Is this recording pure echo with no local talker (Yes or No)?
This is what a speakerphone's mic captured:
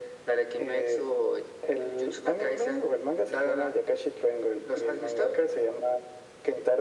Yes